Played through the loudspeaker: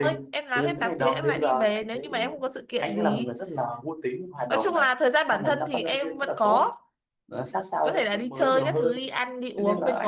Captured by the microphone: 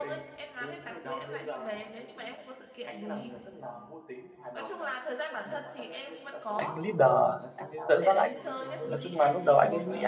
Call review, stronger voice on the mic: user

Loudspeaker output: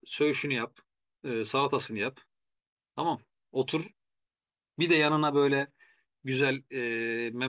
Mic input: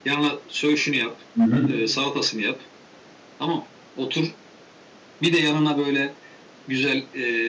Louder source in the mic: user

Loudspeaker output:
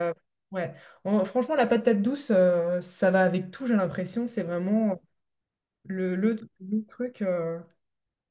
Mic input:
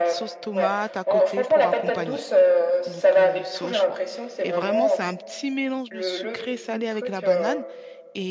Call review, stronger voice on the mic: echo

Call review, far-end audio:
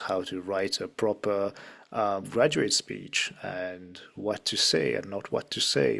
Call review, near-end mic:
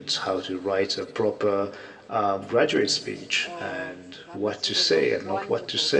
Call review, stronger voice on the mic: echo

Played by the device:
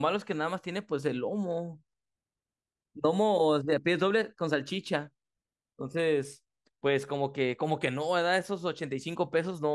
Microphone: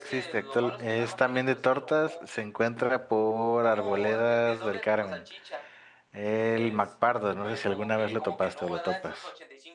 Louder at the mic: user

